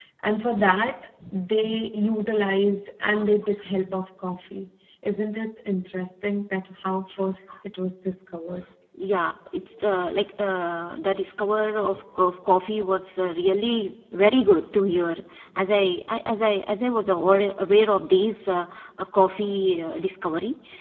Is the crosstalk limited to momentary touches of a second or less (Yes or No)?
Yes